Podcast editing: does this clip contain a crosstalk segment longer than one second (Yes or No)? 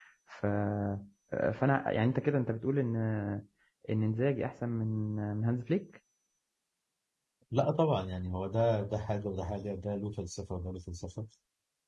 No